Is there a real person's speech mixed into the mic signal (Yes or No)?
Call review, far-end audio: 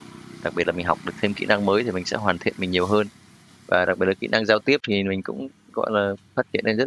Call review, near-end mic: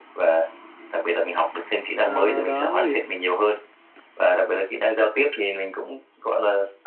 Yes